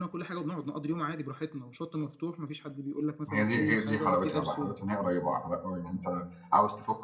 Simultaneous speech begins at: 3.3 s

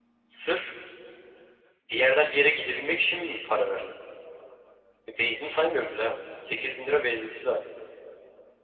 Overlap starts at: none

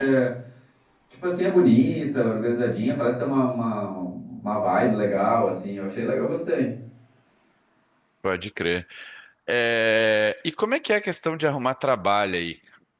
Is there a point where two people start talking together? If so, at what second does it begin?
none

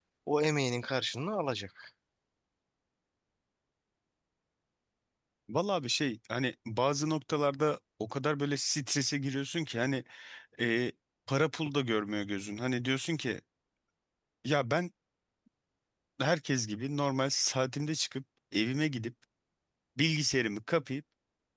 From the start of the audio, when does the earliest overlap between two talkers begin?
none

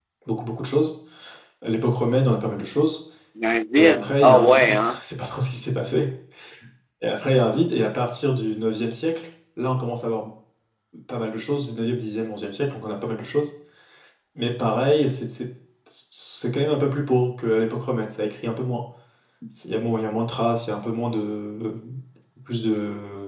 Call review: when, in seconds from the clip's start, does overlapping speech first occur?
3.8 s

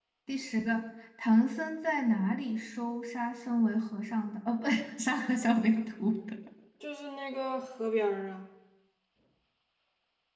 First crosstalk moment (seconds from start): none

